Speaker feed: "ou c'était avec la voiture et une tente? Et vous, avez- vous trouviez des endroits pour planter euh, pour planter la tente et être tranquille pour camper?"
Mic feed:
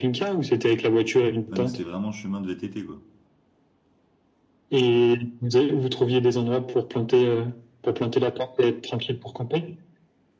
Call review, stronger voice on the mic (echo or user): echo